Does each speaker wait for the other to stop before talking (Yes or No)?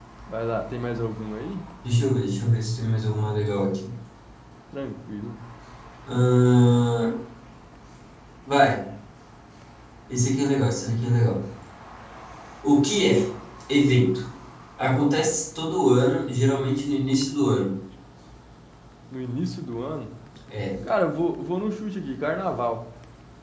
Yes